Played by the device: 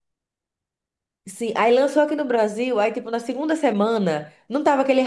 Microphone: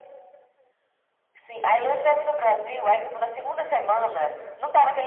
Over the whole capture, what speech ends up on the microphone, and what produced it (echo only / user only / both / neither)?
echo only